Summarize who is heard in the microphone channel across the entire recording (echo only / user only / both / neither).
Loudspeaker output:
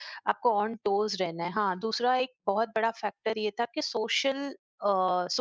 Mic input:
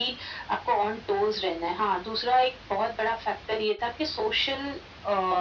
echo only